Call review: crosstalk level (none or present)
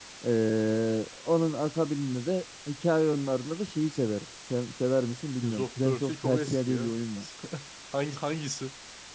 present